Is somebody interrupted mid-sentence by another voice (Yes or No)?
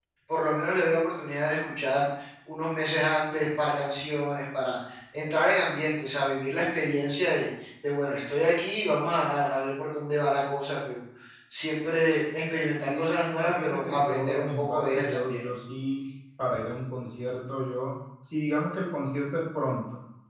Yes